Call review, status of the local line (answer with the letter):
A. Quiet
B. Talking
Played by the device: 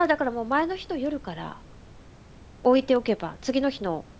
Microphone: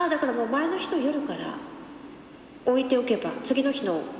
A